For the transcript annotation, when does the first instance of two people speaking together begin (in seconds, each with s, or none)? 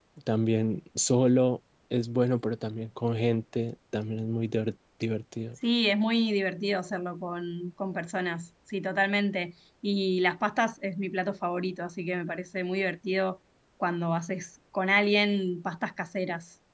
none